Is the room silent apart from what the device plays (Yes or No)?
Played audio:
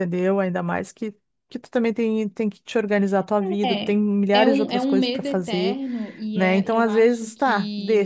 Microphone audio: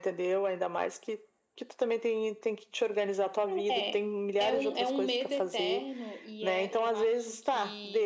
Yes